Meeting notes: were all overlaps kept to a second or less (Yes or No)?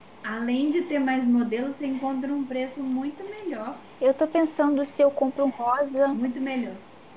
Yes